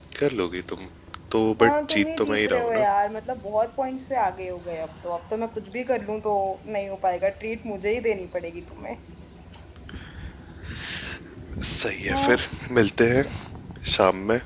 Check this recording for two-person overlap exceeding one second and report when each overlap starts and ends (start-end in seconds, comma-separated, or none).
1.6-2.8